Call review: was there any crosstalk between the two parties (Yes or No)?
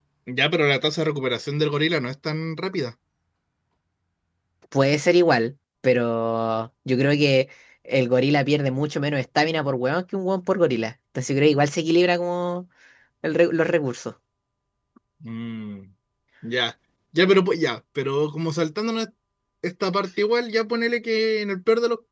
No